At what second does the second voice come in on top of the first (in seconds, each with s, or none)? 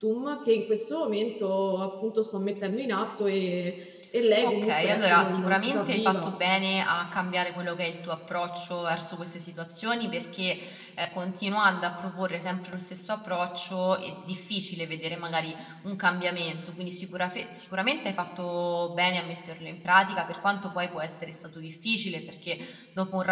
4.4 s